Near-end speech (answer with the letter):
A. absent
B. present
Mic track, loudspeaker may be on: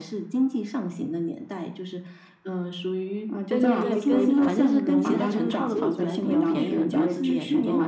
B